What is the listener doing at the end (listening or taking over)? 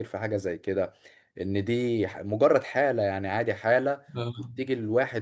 listening